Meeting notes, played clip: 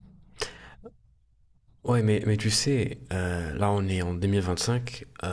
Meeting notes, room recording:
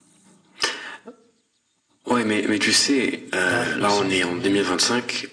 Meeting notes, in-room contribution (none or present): present